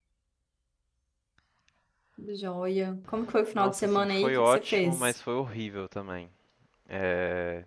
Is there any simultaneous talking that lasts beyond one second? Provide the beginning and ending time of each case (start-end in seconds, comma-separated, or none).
3.6-5.1